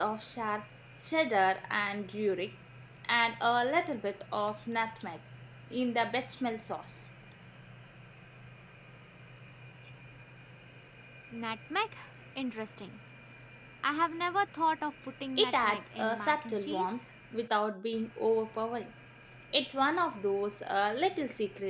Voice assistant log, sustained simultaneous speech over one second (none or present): present